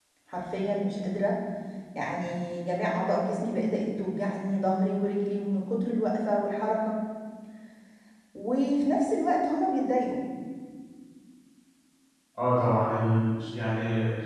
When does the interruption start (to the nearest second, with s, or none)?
none